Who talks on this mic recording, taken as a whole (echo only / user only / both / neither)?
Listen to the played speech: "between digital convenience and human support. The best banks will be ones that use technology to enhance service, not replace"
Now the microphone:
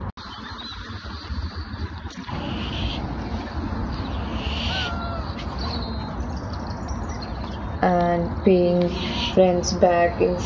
user only